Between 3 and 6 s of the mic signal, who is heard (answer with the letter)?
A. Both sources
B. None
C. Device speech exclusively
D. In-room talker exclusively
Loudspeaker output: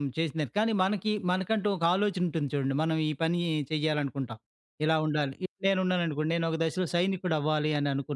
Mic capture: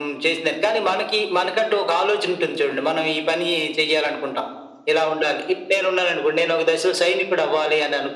C